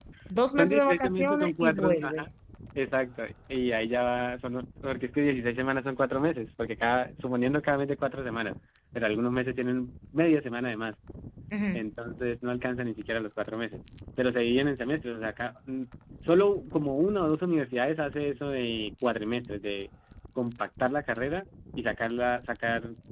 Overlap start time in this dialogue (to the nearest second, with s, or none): 1 s